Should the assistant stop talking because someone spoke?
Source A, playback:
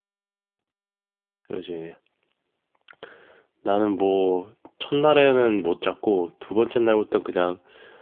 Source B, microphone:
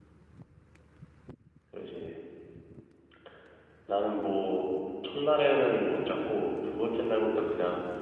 No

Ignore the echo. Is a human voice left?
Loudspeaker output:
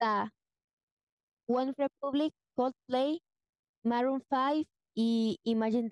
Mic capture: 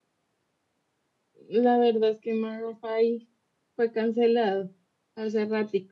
Yes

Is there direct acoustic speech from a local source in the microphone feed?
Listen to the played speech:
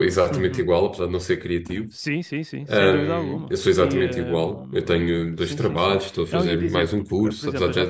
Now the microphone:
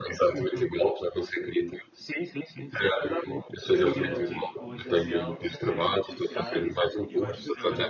Yes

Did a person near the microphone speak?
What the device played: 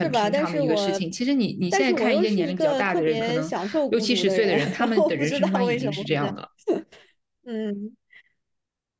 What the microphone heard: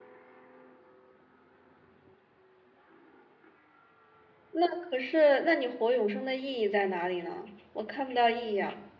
Yes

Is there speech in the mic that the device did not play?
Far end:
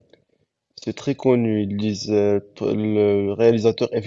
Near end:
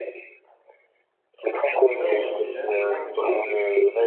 Yes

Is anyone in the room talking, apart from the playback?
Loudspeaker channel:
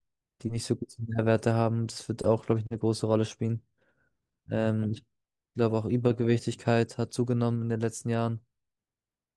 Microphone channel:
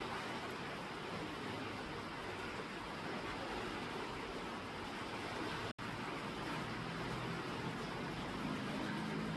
No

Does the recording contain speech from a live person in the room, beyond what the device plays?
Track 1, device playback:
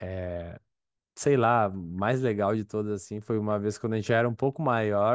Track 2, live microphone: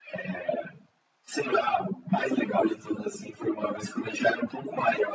No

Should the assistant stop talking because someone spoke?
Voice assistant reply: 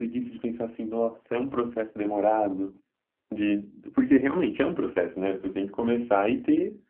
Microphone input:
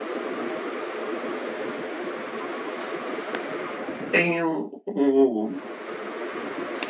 Yes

